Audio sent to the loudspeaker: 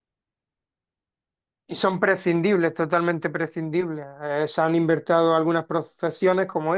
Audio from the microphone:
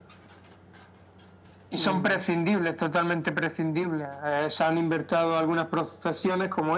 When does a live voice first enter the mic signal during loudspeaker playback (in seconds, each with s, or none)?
1.8 s